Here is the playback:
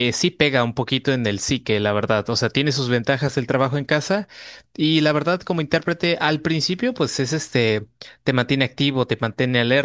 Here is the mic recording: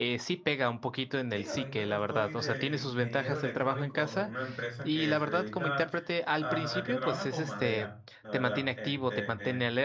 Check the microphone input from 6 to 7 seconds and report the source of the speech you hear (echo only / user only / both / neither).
both